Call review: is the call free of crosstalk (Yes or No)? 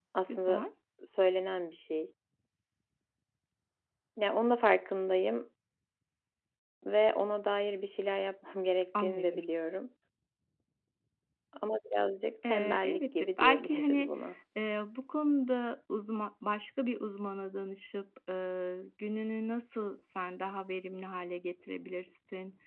No